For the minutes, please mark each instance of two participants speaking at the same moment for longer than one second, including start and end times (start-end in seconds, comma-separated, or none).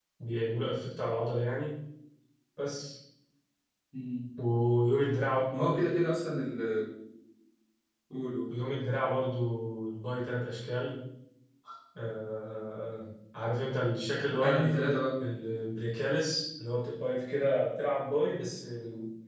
none